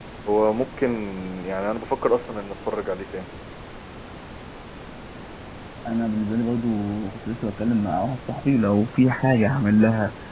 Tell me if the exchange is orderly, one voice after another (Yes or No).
Yes